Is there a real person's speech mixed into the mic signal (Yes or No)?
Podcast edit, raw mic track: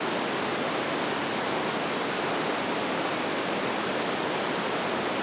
No